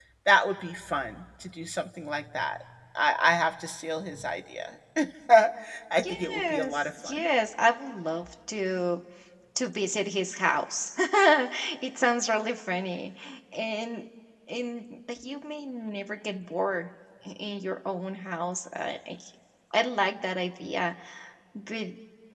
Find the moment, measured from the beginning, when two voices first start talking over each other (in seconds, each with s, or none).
6.0 s